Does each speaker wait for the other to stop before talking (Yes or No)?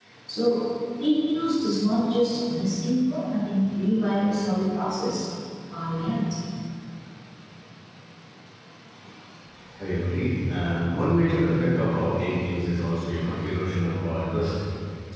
Yes